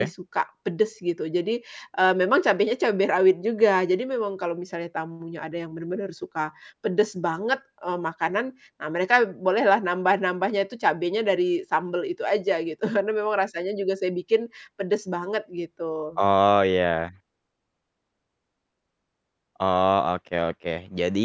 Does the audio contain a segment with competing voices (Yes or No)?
No